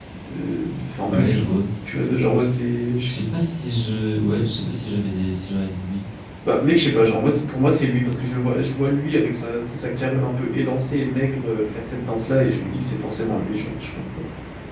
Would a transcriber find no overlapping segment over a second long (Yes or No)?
Yes